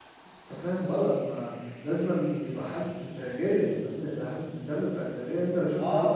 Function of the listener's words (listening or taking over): taking over